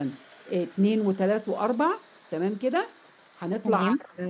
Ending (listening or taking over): listening